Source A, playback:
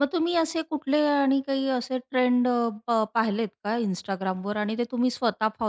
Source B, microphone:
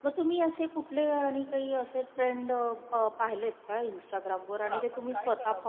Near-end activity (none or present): present